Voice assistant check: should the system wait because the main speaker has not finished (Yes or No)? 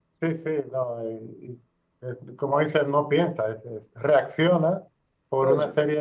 Yes